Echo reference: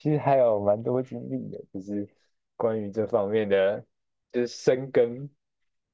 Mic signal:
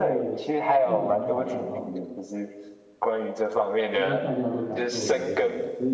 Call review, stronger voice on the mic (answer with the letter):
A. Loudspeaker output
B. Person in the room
A